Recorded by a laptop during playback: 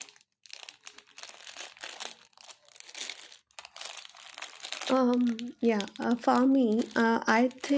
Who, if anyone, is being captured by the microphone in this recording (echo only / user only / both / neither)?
user only